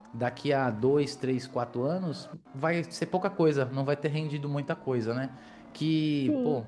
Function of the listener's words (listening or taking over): listening